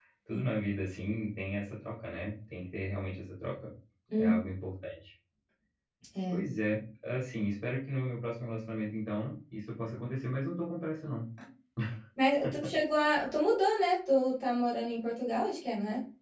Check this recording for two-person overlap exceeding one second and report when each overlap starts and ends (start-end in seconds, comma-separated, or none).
none